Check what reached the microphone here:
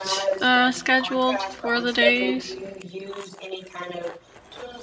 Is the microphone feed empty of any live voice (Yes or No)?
No